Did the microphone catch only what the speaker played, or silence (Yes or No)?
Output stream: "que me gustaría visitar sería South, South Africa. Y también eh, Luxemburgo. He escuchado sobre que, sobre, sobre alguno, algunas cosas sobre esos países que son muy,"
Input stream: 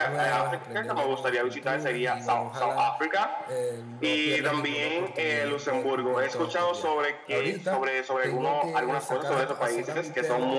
No